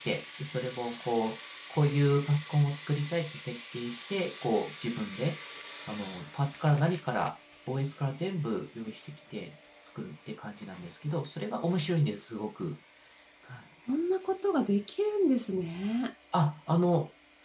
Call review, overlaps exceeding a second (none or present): none